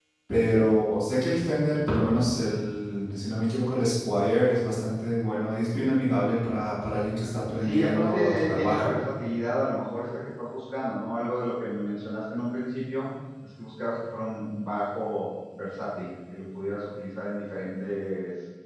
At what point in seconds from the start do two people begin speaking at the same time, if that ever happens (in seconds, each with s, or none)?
7.6 s